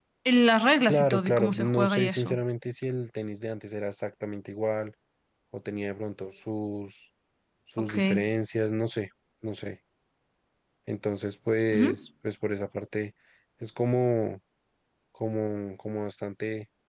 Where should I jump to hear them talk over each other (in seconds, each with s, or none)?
0.9 s